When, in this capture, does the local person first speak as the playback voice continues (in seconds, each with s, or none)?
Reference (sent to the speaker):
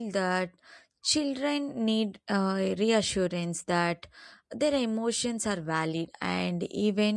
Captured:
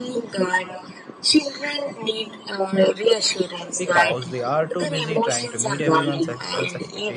3.8 s